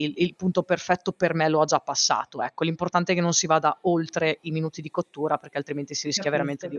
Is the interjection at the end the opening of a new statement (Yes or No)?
Yes